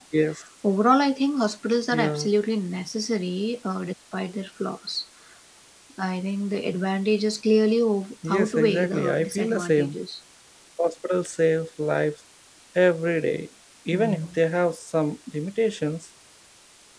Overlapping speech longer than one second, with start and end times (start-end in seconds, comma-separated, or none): 8.2-10.0